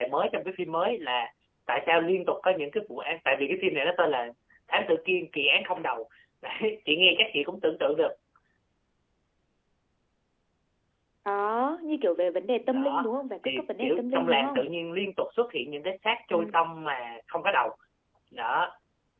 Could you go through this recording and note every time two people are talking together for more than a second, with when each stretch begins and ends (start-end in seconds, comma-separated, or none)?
13.4-14.7